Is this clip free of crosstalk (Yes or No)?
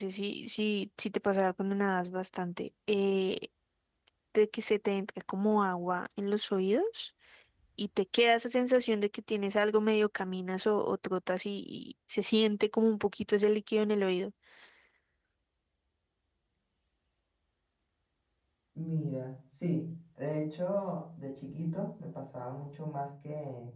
Yes